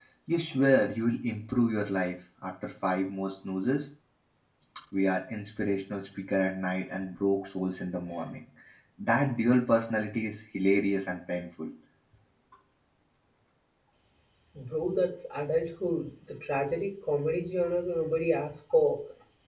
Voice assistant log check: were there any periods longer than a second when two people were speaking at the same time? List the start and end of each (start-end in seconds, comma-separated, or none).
none